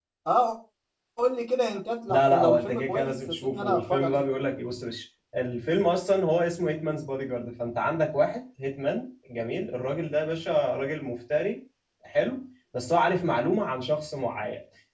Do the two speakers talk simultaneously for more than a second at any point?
Yes, from 2.1 s

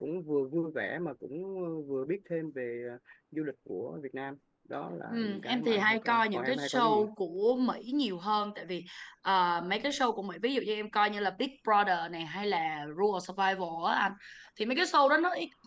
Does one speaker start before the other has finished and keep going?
Yes, from 5.1 s

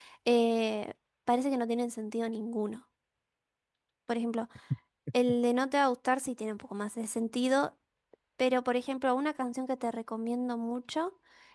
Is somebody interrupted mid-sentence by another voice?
No

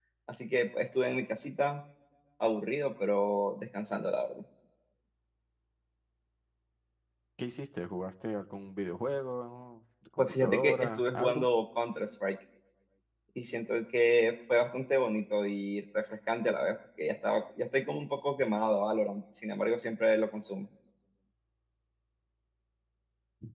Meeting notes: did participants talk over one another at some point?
Yes, from 10.2 s

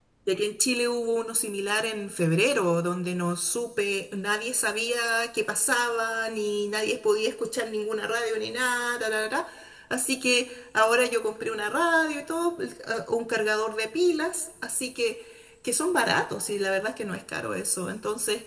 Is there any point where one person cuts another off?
No

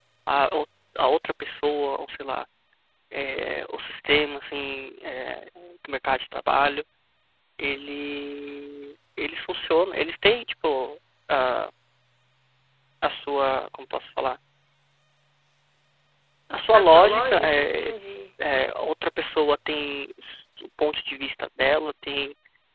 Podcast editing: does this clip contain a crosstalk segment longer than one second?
Yes, from 16.7 s

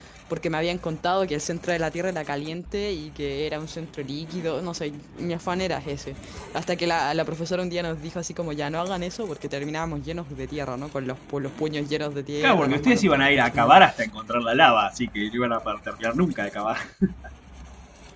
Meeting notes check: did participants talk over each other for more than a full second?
Yes, from 12.4 s

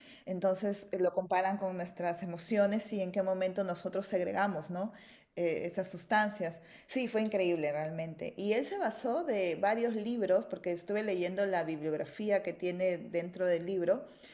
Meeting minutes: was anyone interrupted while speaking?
No

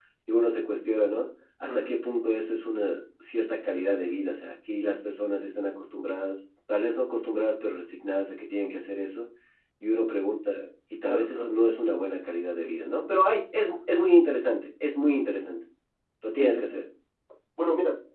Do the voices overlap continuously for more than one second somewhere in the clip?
No

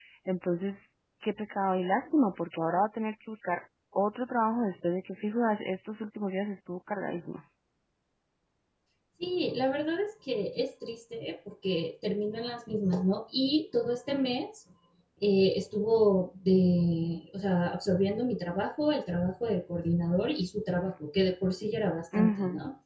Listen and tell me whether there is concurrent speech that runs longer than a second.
No

